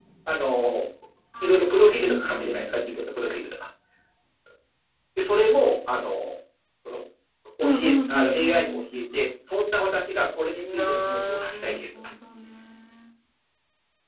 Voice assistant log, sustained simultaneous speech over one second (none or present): present